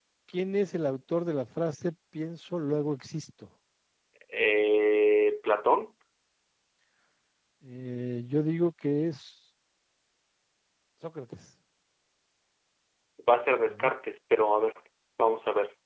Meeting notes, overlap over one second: none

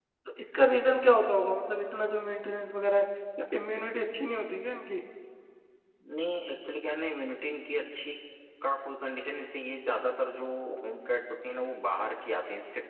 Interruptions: none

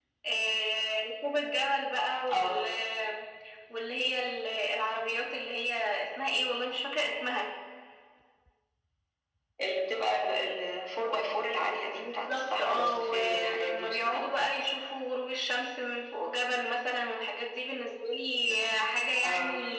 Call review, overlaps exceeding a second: present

